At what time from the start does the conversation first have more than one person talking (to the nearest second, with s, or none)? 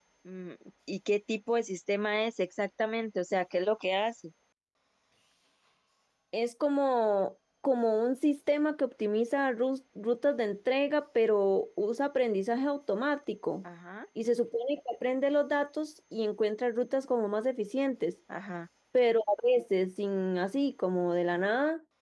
none